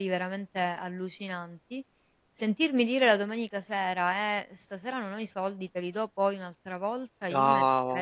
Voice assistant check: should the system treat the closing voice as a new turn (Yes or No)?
No